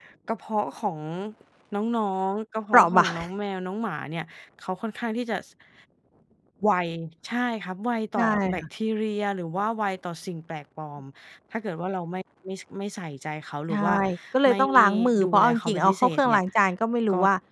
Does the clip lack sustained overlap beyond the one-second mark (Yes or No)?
No